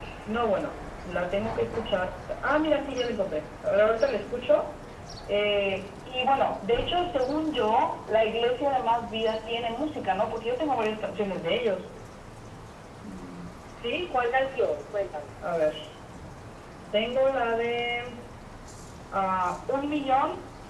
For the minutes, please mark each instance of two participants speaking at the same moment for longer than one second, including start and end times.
none

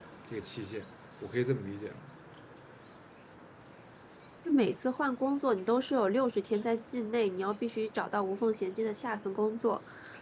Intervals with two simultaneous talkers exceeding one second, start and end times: none

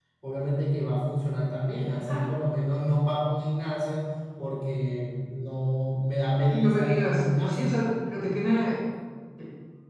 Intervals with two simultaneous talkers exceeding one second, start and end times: 6.5-7.7

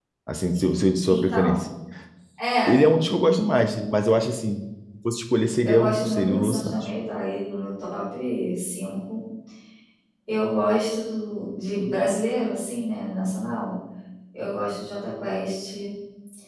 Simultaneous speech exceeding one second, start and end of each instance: 5.7-6.9

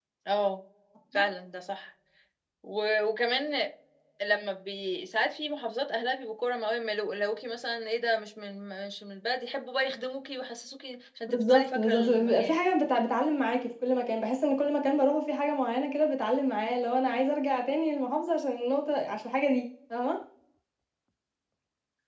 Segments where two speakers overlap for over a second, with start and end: 11.3-12.5

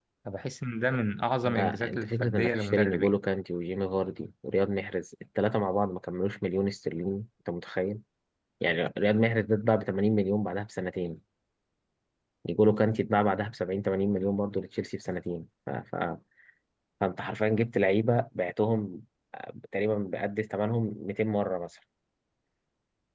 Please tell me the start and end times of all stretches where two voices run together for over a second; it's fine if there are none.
1.4-3.2

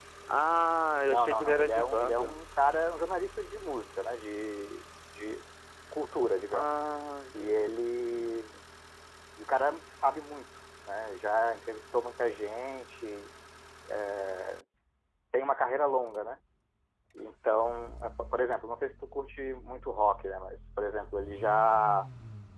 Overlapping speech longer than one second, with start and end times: 1.1-2.4

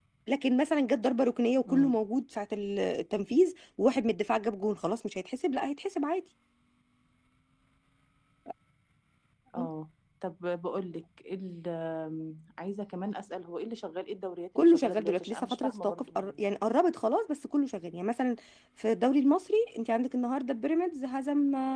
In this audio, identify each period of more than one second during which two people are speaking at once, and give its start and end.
14.6-16.4

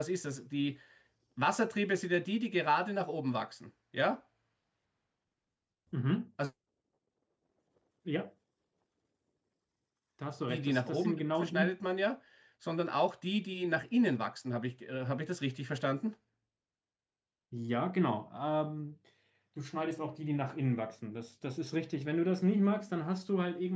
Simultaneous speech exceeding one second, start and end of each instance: 10.5-11.7

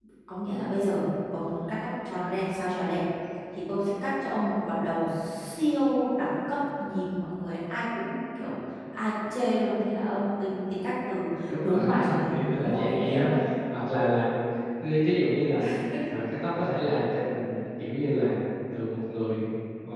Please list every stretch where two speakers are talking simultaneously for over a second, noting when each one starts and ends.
11.6-13.3

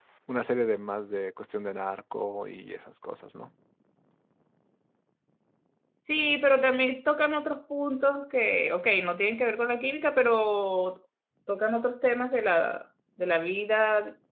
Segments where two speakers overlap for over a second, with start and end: none

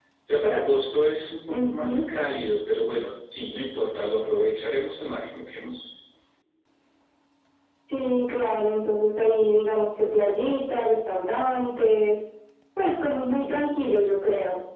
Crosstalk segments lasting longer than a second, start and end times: none

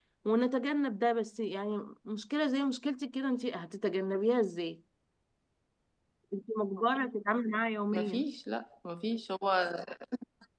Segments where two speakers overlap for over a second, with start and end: none

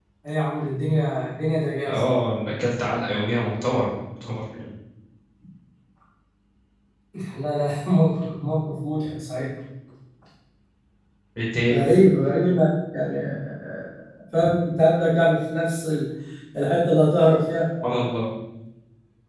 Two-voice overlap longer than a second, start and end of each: none

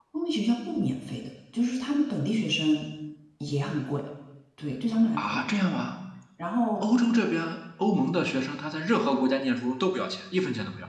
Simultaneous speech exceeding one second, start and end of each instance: none

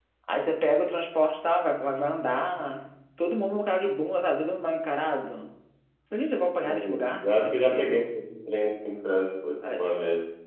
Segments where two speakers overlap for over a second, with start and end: 6.6-8.0

